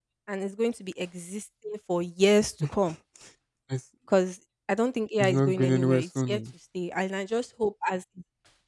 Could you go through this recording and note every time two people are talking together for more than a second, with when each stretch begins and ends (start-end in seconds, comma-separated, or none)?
5.2-6.4